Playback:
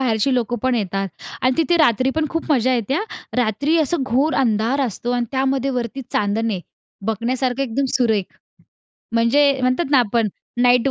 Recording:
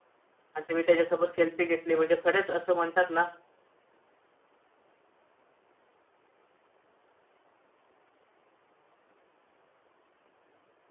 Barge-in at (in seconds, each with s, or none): 0.5 s